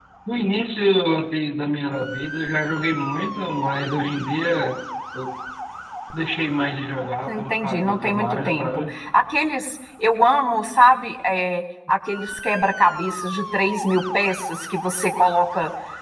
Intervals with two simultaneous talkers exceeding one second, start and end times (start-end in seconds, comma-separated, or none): 7.3-8.9